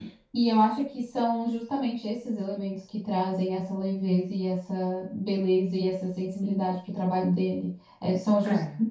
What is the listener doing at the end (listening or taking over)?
listening